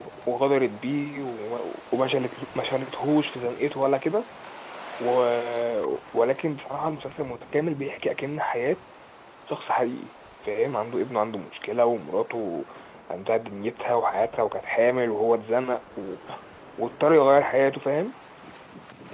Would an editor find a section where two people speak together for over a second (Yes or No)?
No